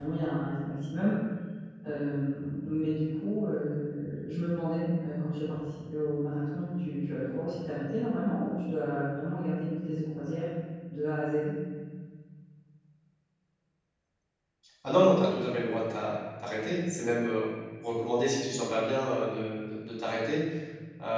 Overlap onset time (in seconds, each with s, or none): none